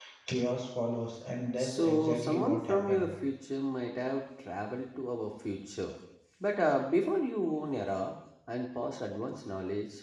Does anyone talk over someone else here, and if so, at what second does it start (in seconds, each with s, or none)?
1.6 s